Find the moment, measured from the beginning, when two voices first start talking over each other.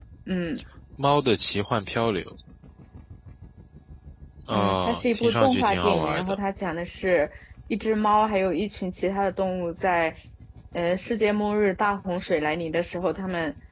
4.5 s

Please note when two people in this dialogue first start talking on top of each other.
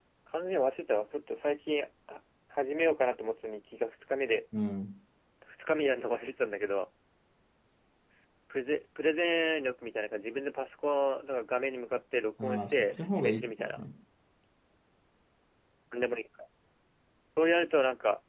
12.4 s

